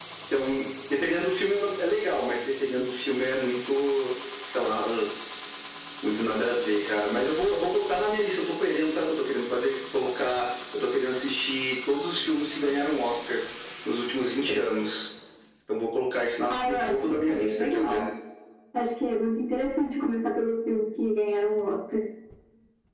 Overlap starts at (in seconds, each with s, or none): 16.5 s